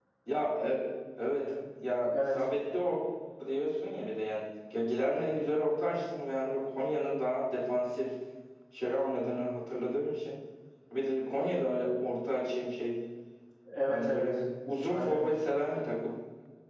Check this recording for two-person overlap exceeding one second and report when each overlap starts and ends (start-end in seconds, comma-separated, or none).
none